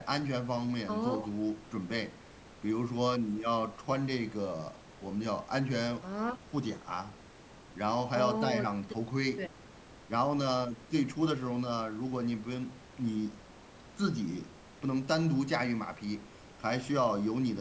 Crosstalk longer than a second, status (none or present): none